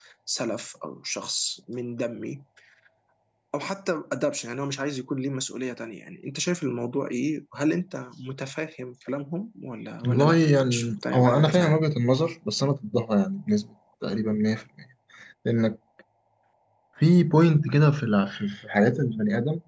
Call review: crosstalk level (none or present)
present